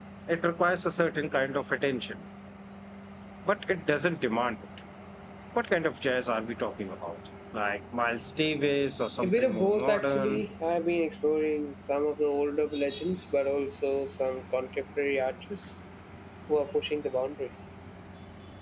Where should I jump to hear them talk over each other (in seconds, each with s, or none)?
9.0 s